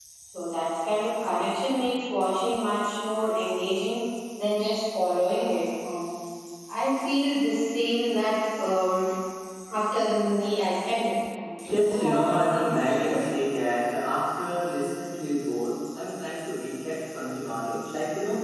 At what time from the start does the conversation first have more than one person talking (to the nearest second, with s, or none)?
12 s